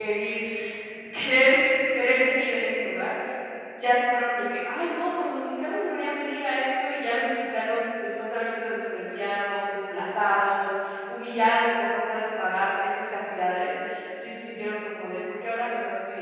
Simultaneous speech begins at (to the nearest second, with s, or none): none